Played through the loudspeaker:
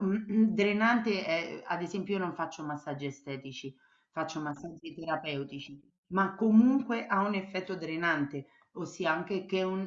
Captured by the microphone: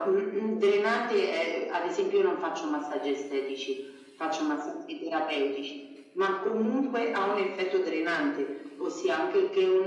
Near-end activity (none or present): none